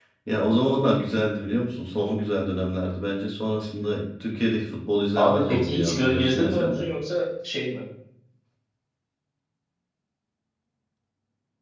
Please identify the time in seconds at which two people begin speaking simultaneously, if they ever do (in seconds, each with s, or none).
5.2 s